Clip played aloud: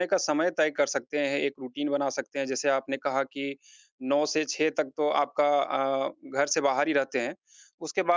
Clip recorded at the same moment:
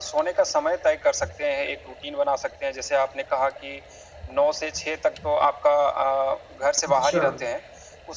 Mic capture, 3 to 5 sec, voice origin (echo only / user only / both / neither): echo only